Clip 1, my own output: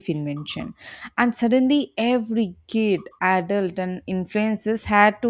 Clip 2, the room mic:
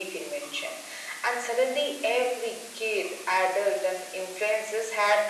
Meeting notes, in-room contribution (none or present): none